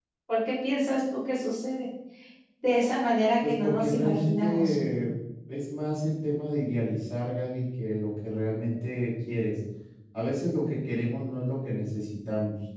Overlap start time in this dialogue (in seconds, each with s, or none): 3.4 s